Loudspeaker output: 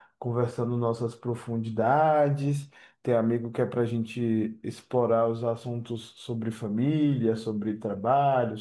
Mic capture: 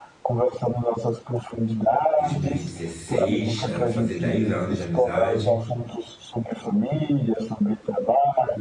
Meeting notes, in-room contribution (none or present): present